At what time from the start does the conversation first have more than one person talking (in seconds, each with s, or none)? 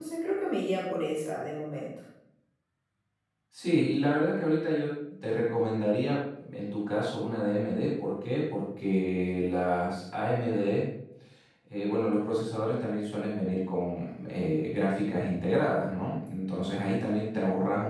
none